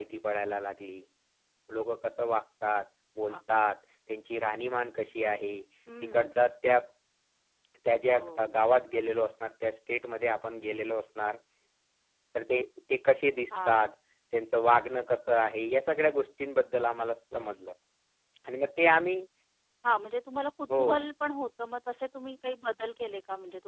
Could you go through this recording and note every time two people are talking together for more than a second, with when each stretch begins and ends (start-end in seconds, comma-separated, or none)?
none